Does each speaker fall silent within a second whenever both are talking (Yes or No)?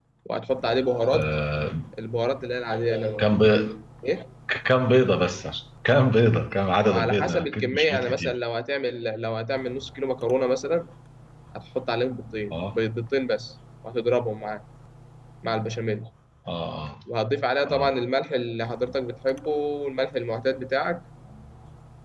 No